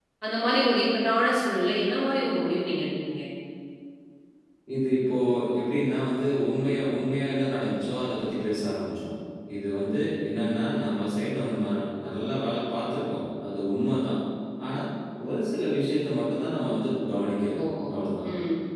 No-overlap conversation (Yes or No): Yes